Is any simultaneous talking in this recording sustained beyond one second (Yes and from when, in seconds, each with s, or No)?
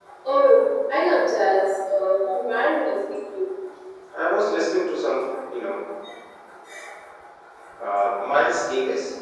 No